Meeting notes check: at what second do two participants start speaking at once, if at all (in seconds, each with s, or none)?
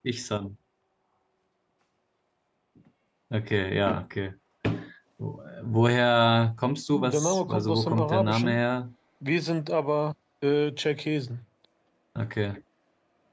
6.9 s